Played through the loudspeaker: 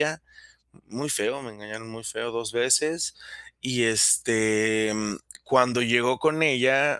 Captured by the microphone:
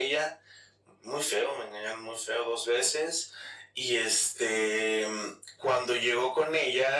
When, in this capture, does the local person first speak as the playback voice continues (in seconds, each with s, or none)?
none